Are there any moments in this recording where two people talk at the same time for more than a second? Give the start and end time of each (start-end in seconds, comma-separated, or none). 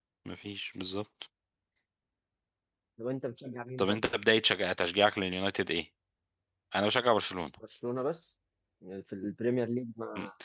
none